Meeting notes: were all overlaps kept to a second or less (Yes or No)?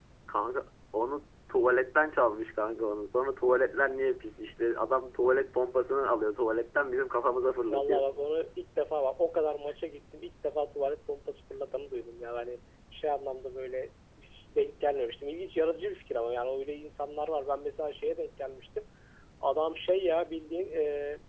Yes